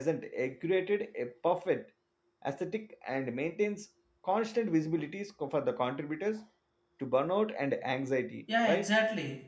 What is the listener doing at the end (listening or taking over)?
taking over